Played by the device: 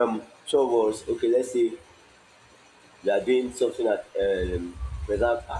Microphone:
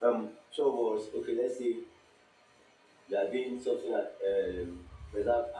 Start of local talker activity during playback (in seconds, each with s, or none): none